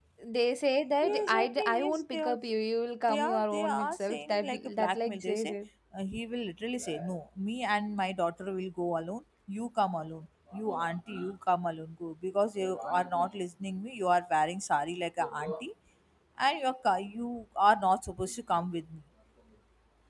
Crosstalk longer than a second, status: present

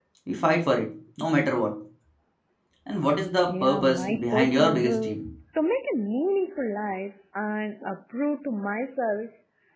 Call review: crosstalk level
present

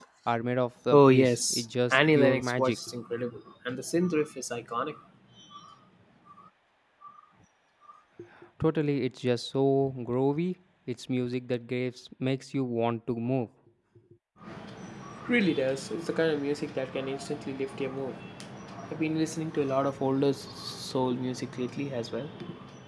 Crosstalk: present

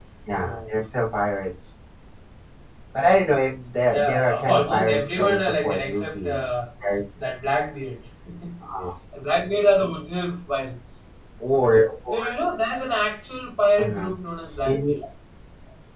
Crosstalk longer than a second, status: present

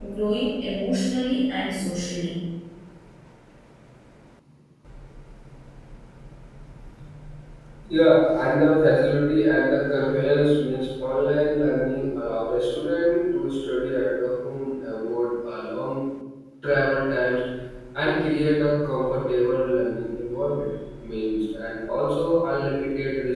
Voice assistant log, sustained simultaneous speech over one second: none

